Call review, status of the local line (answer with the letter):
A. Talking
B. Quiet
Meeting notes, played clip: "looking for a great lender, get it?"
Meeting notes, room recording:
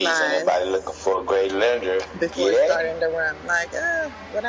A